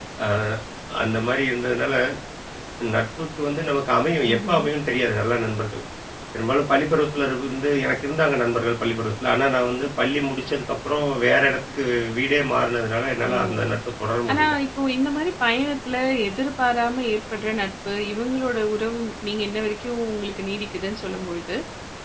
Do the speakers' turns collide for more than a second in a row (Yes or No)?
No